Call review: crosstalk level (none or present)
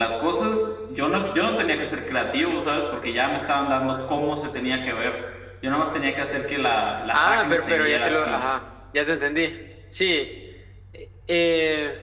present